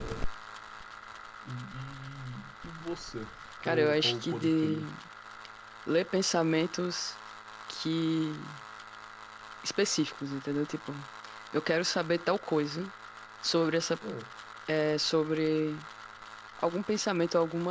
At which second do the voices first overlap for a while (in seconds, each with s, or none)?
3.6 s